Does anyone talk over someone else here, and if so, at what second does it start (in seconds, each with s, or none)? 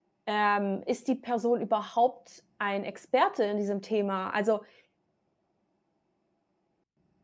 none